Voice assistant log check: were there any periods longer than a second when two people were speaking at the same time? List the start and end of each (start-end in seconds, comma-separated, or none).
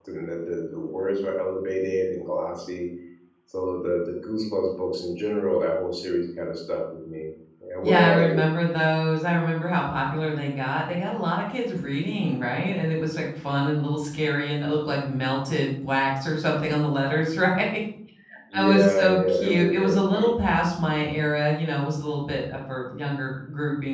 18.6-20.3